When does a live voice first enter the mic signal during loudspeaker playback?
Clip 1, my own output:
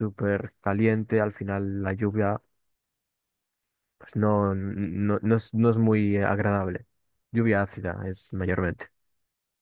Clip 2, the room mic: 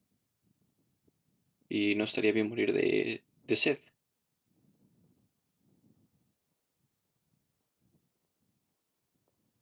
1.7 s

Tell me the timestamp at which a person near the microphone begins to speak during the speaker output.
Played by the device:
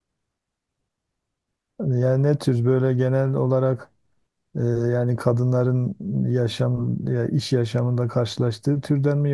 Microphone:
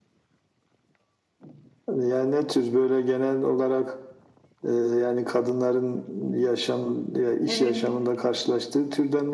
7.5 s

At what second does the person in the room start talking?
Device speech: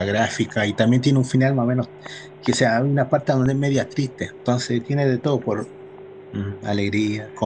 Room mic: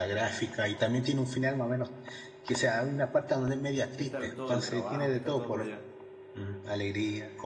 3.9 s

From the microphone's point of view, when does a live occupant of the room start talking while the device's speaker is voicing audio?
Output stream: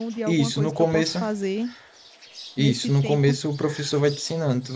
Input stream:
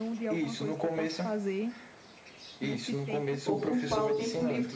3.4 s

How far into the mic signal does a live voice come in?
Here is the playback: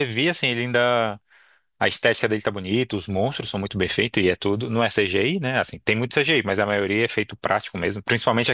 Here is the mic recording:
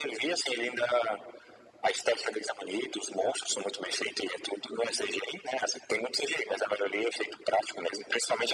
none

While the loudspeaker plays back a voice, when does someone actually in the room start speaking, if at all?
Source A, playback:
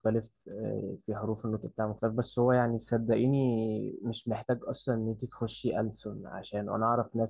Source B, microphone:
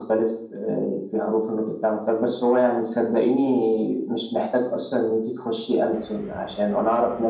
none

